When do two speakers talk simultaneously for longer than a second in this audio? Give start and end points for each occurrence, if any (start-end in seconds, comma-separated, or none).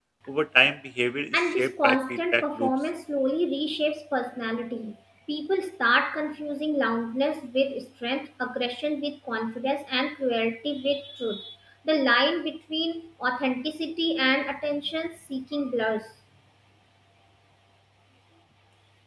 1.3-2.7